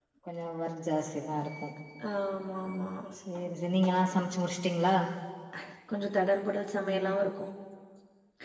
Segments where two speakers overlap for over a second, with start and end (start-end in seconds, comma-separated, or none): none